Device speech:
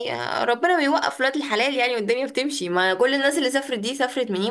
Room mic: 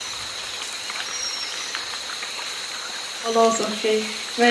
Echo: none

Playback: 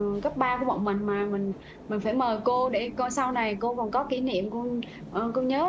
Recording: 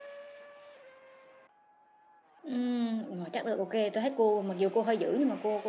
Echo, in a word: none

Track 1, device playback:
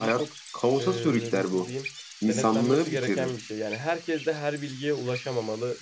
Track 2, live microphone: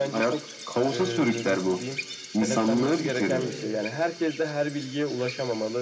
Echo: present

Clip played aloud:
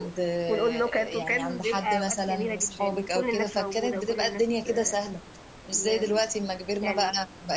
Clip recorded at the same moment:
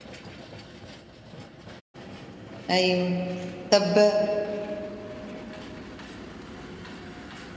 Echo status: none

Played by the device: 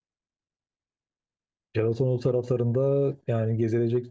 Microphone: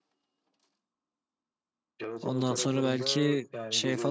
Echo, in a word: present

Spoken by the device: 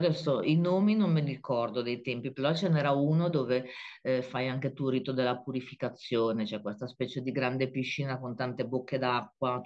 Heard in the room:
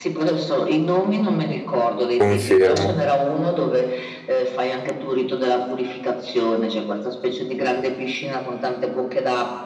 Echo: present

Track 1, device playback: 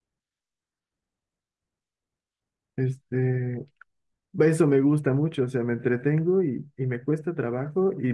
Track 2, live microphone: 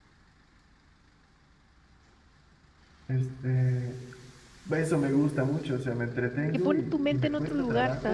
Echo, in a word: present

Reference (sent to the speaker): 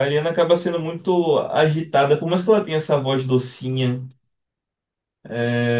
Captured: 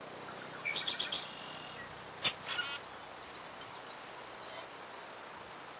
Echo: none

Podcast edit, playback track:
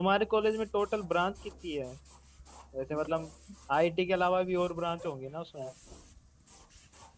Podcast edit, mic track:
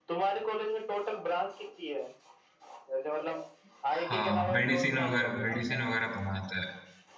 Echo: present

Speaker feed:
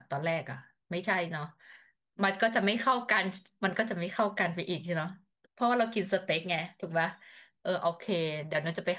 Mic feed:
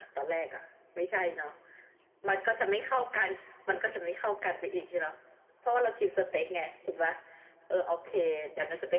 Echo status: present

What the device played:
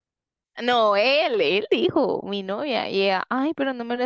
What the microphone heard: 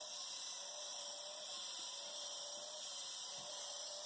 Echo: none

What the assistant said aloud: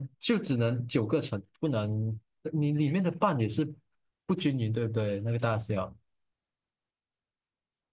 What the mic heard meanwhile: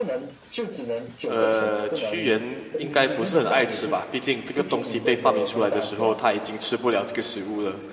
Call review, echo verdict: present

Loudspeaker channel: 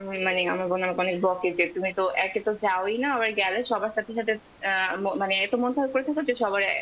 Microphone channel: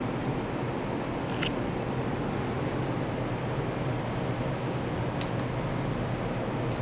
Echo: none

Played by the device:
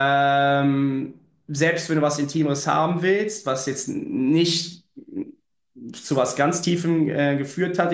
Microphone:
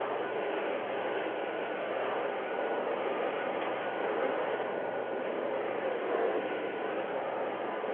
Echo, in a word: none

